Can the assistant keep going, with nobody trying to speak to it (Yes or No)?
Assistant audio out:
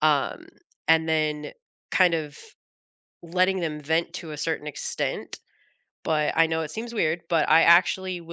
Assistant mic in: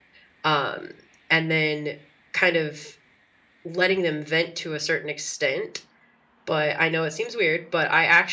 Yes